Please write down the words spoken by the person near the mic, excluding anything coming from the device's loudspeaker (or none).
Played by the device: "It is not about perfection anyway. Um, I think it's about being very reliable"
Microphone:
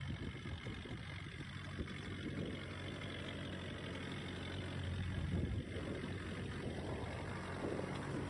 none